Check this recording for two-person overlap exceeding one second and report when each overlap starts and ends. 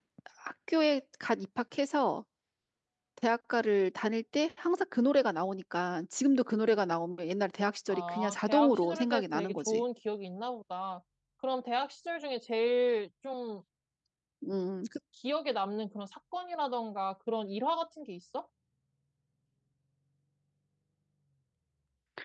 7.9-9.8

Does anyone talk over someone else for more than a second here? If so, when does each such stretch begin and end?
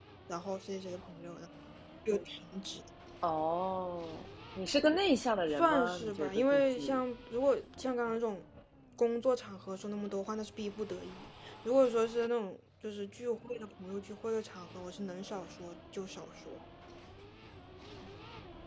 5.6-6.8

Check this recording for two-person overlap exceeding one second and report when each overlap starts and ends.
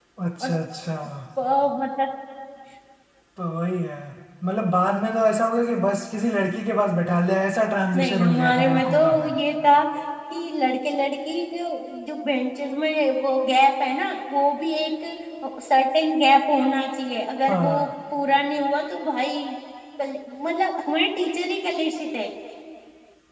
8.0-9.4

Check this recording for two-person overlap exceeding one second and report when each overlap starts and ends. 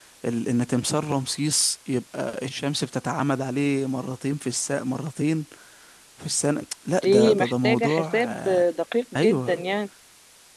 7.0-8.6

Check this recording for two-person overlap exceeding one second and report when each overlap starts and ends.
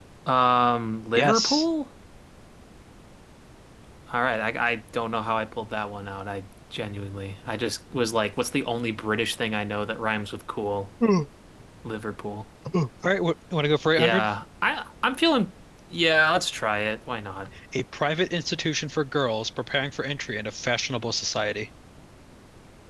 none

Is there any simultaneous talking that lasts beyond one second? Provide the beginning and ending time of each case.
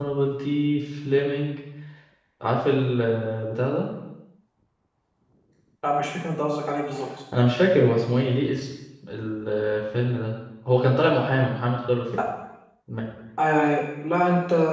none

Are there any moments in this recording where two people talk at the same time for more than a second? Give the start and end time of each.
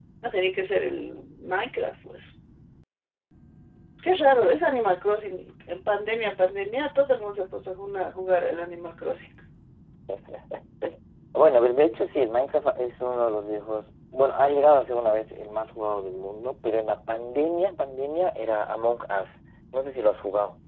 none

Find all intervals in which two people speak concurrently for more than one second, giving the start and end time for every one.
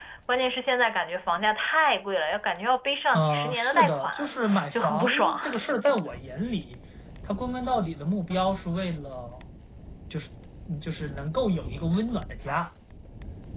3.1-5.4

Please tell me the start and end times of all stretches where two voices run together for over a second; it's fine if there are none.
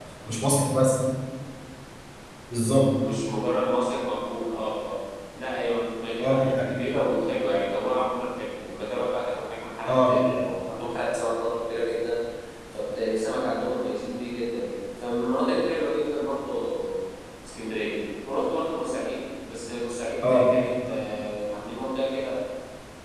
none

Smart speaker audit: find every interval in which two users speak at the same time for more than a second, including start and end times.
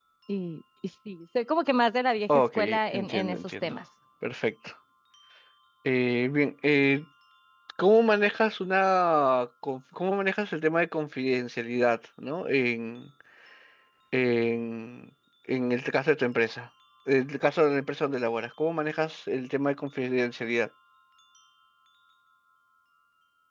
2.3-3.8

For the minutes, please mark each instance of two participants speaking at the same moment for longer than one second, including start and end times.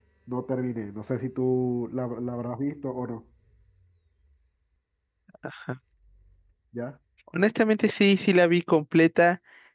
none

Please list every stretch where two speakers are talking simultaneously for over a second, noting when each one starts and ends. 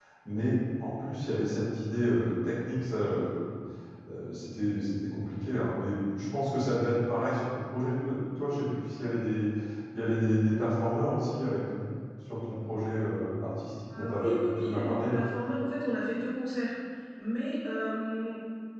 13.9-15.2

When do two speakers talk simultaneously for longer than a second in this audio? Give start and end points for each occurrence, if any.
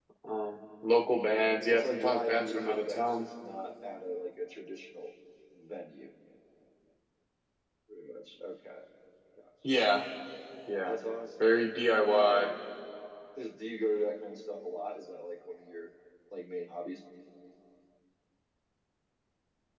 1.7-3.3

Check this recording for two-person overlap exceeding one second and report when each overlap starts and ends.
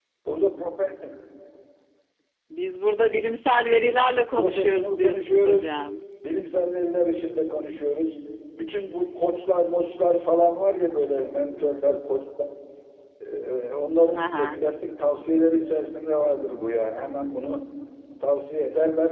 4.3-5.6

